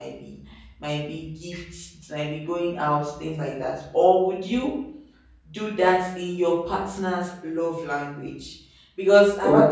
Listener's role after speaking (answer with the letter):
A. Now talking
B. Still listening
B